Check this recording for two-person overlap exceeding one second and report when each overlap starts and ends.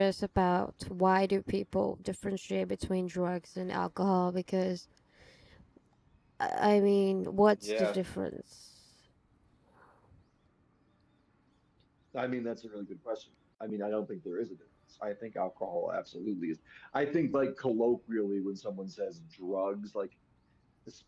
none

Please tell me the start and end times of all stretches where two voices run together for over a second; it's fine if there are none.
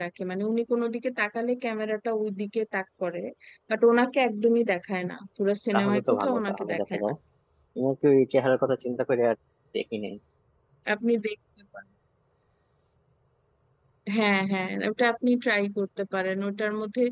5.7-7.0

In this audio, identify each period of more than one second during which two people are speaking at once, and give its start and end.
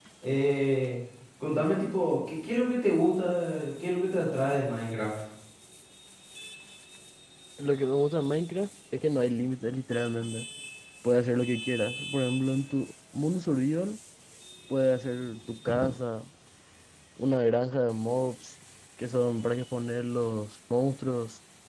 none

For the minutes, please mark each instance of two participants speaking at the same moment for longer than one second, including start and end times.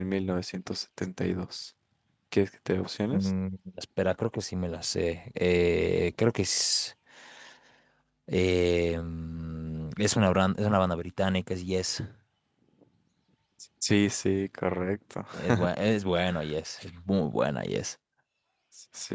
none

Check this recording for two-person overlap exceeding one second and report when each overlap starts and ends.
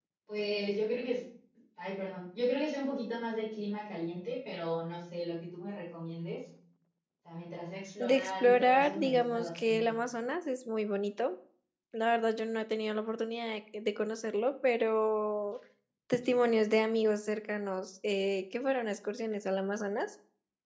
8.0-9.9

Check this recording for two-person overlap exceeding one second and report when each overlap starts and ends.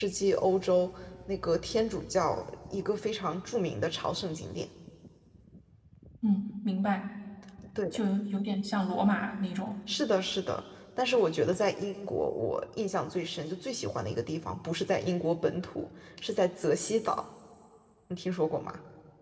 none

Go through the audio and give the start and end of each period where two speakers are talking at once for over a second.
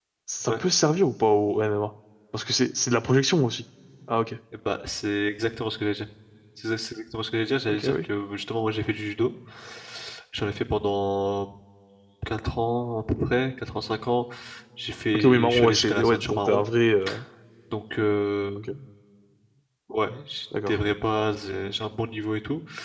15.2-16.6

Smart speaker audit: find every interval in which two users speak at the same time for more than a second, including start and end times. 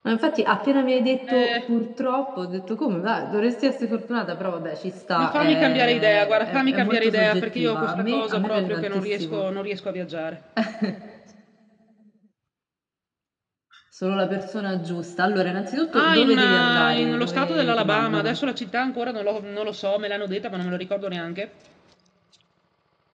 5.2-9.4, 15.9-18.4

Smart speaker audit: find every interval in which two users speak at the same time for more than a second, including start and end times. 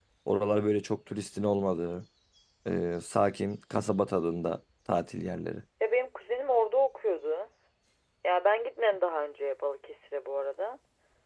none

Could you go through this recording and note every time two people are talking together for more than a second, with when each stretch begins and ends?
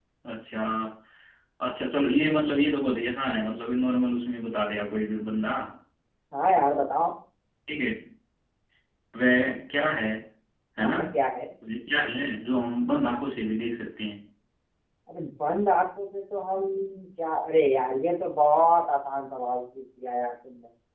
none

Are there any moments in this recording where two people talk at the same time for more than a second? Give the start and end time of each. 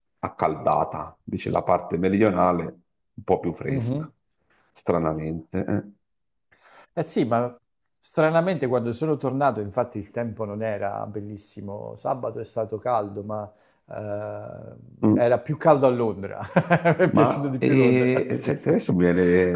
17.1-18.4

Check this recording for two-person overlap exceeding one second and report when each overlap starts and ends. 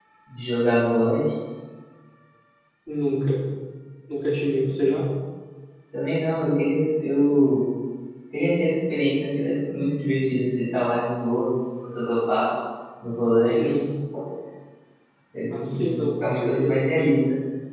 15.5-16.9

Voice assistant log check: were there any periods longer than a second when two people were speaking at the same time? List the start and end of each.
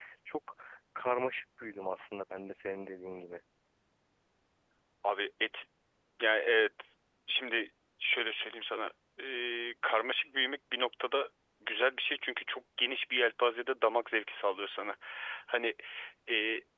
none

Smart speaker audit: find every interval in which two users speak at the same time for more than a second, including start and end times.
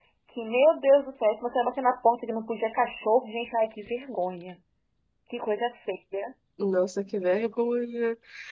none

